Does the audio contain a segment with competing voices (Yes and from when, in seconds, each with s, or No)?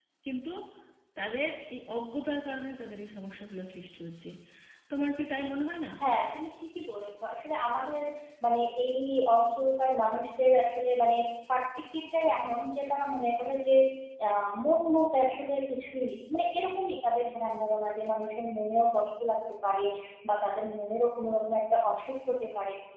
No